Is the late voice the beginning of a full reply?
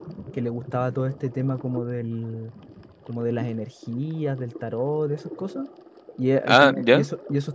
No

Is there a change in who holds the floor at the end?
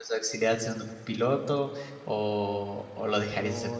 Yes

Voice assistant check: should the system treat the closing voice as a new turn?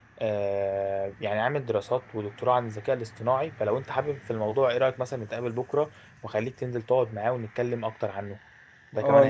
Yes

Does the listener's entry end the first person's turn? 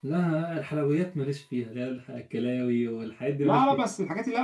Yes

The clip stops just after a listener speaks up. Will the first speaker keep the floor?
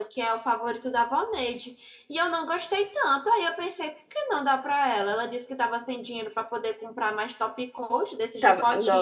No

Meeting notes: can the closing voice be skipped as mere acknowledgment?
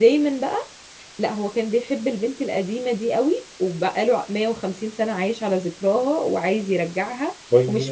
Yes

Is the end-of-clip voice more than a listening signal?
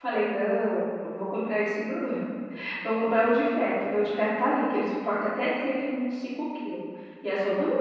No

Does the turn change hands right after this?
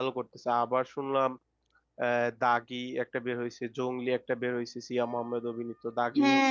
Yes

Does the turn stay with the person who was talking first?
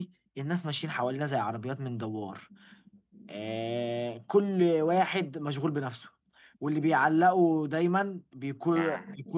Yes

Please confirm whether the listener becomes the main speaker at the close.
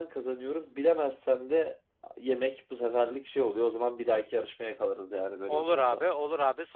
Yes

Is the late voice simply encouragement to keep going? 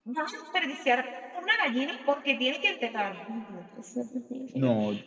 Yes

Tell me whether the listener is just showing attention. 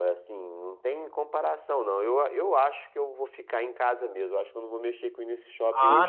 No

